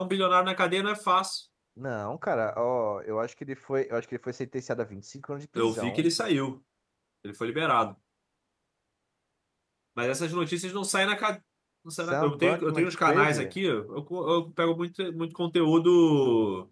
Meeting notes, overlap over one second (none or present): present